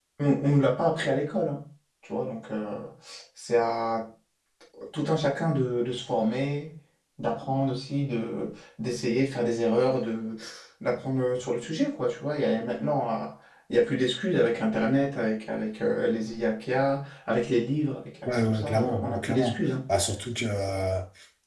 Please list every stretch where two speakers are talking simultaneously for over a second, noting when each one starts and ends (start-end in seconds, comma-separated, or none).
18.3-19.6